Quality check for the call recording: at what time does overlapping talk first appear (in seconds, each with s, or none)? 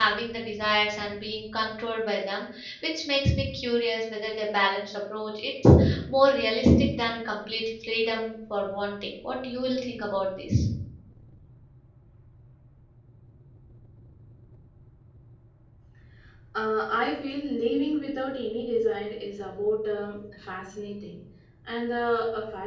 none